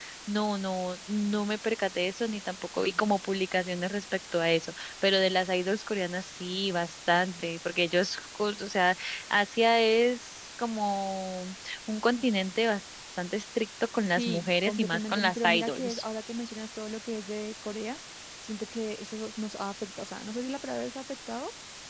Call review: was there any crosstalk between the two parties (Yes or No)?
Yes